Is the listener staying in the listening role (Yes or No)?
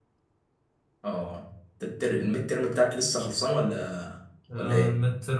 No